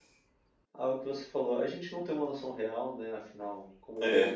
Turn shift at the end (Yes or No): No